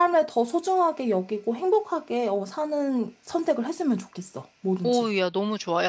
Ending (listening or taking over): taking over